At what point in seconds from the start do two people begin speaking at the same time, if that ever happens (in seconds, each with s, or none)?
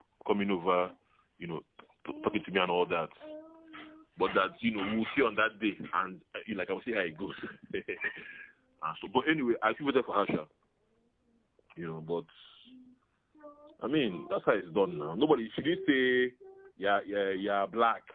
none